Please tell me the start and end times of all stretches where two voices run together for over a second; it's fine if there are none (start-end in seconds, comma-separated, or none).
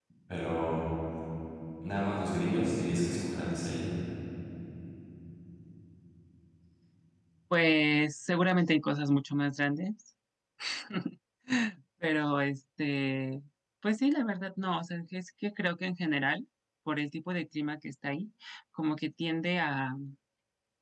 none